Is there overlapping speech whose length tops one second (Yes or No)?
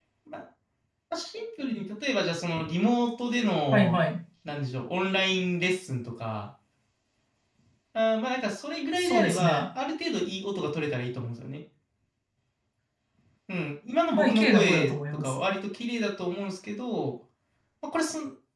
Yes